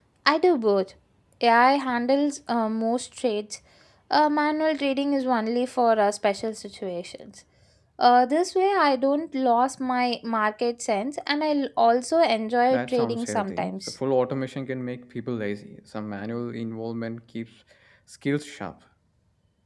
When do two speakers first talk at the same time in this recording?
13 s

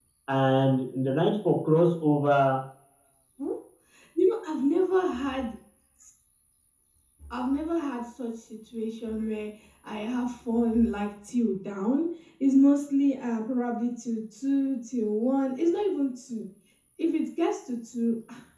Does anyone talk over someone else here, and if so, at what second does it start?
none

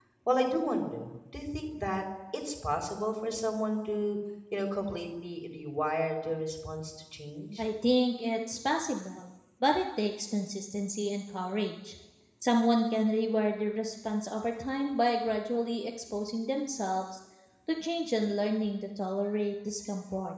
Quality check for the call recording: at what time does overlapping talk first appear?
none

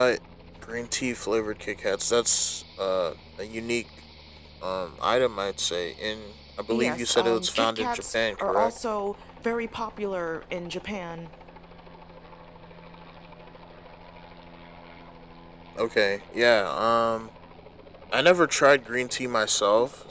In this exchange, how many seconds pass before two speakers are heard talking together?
7 s

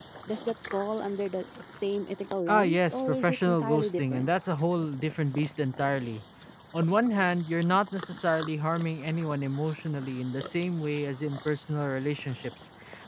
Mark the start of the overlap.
2 s

